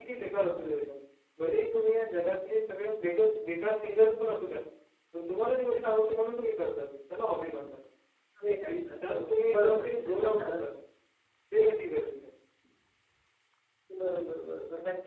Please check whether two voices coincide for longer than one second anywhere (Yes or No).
Yes